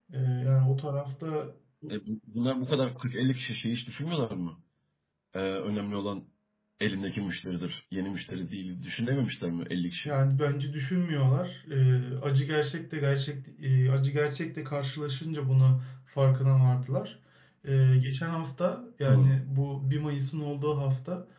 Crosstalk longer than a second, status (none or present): none